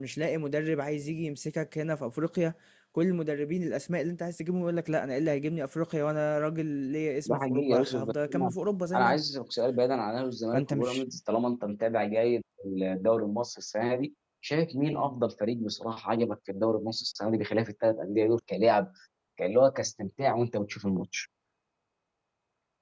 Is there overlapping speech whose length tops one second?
Yes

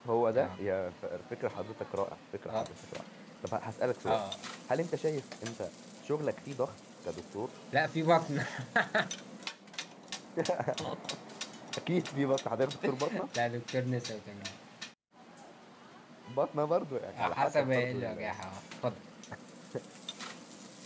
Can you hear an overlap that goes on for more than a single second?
Yes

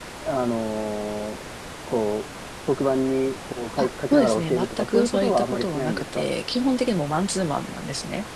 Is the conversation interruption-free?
No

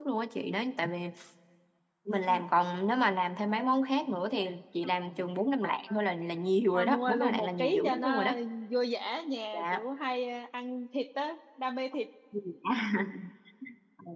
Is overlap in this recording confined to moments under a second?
No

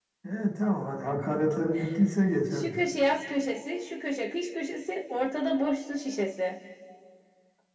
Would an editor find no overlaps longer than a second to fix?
Yes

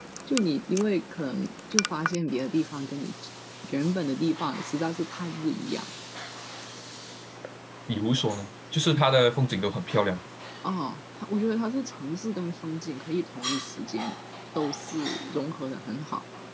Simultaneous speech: No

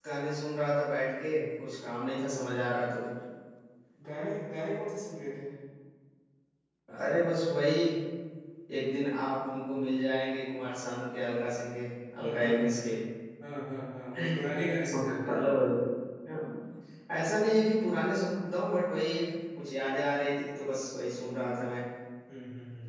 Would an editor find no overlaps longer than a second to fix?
Yes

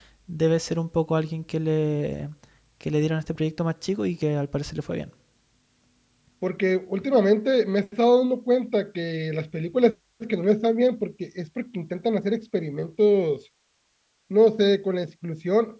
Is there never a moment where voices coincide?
Yes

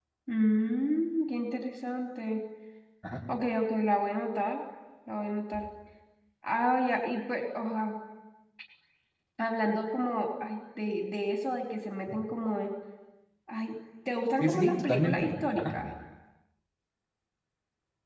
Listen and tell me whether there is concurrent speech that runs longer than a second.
Yes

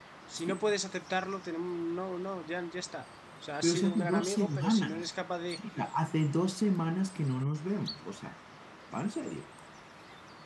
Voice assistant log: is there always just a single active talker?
No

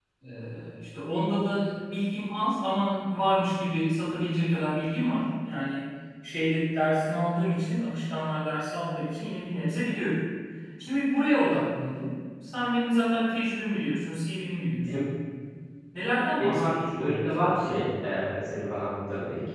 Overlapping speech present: Yes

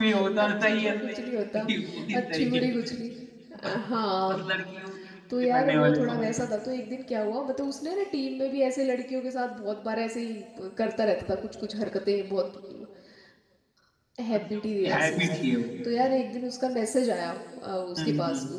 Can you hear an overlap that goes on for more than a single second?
Yes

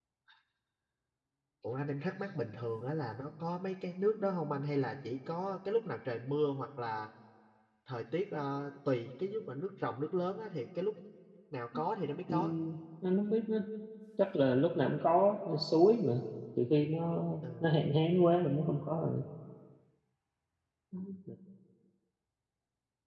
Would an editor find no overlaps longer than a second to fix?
Yes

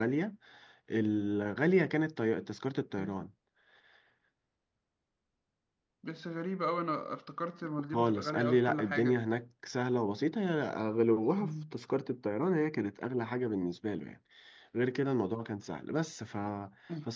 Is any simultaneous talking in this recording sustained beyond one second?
Yes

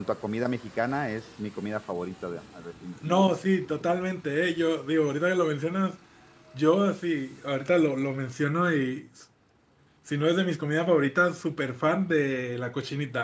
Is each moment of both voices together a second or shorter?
Yes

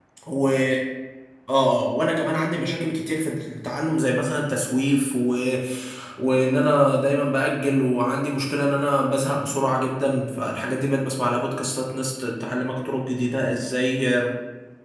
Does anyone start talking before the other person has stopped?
No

